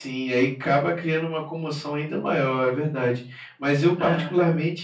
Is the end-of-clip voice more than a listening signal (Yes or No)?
No